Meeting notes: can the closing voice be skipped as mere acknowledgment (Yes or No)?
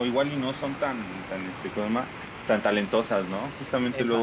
Yes